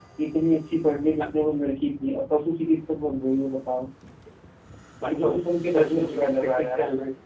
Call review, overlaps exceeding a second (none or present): present